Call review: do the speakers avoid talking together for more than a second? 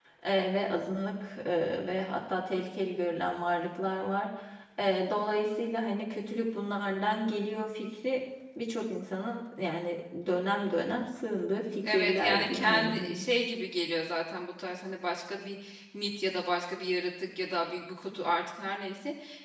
No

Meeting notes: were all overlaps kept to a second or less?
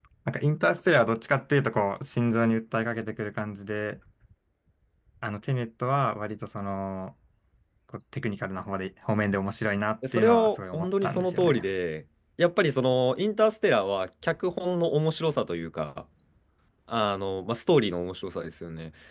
No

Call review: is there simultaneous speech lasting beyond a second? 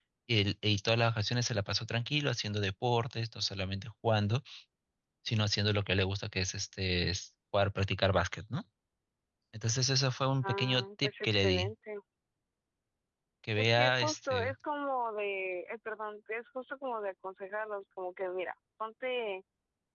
Yes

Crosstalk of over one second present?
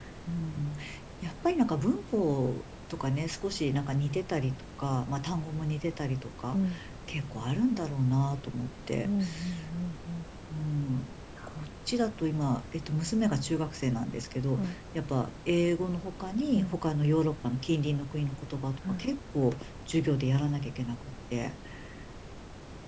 No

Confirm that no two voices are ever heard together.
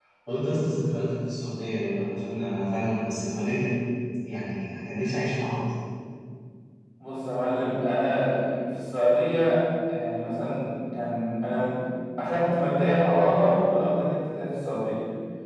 Yes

